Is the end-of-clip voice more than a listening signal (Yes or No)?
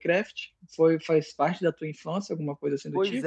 Yes